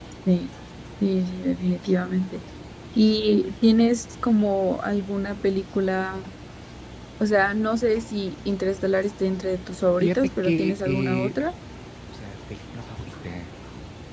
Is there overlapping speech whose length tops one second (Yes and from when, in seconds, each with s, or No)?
Yes, from 10.0 s